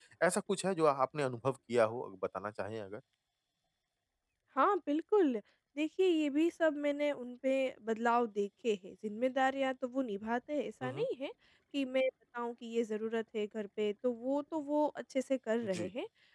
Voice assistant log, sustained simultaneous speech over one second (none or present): none